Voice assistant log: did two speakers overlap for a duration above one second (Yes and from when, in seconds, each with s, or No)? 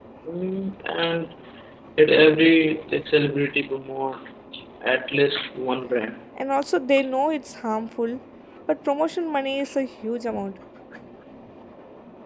No